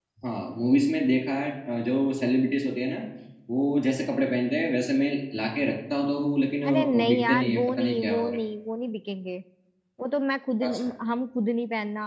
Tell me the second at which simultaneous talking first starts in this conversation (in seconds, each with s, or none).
6.7 s